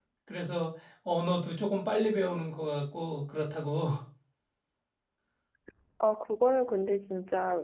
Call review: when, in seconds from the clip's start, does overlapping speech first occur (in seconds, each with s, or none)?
none